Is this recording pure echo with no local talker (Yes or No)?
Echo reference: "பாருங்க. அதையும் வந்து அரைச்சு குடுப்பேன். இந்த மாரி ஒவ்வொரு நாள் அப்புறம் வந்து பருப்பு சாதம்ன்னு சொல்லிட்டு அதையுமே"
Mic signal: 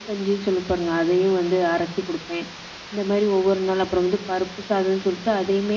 Yes